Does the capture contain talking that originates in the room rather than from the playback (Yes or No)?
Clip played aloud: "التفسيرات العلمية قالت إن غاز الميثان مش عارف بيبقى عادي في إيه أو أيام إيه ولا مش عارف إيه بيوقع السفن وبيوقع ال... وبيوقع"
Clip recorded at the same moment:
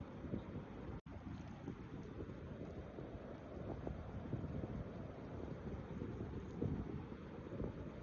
No